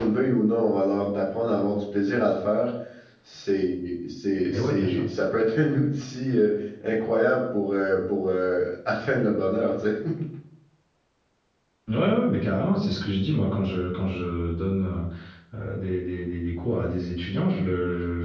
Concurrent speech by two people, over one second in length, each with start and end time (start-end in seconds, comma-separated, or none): none